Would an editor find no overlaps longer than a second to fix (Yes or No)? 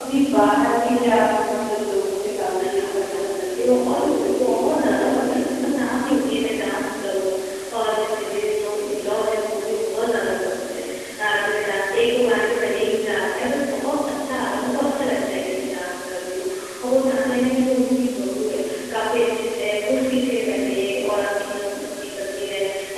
No